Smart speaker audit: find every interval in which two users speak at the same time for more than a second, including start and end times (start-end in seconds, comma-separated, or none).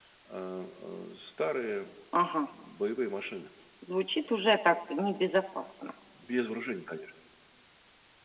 none